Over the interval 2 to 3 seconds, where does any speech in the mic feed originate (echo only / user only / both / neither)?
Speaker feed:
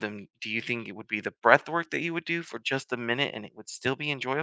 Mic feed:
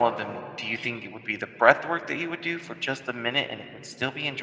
echo only